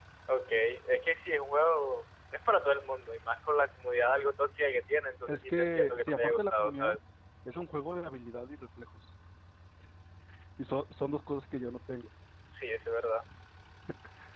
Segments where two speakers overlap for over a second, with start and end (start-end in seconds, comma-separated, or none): 5.3-7.0